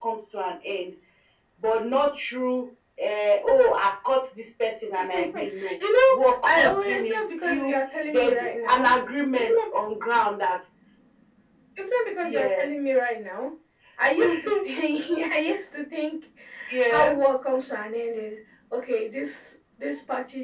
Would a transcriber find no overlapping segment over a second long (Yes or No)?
No